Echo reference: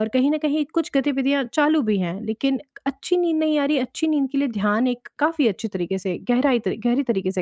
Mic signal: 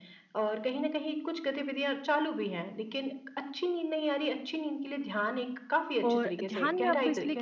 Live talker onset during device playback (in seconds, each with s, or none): 6.0 s